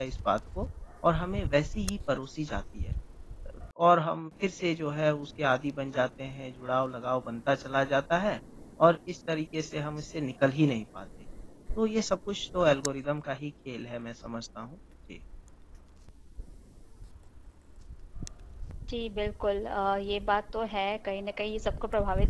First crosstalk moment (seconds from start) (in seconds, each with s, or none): none